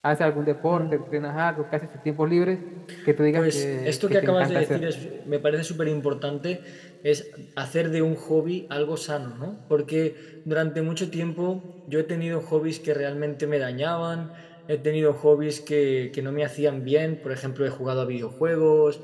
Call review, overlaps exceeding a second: present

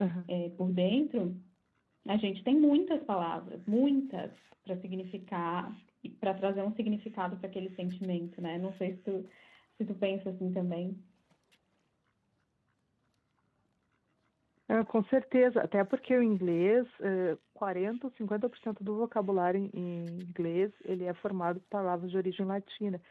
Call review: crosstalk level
none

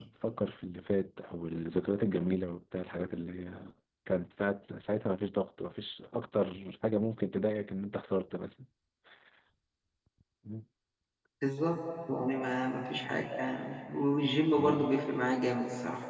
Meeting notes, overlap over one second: none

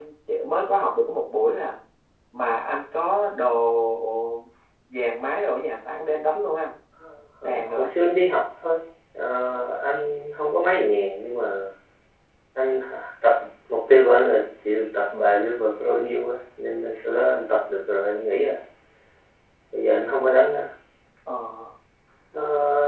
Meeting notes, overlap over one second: none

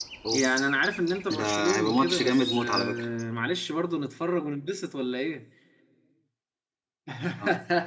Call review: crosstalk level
present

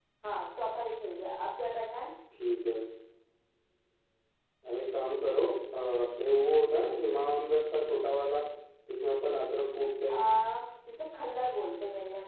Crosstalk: none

